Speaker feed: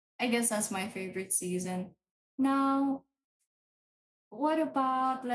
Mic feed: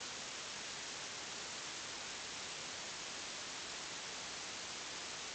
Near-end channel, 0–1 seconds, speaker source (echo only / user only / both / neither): neither